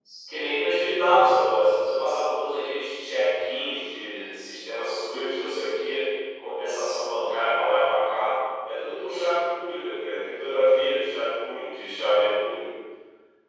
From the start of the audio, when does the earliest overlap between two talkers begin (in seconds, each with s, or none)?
none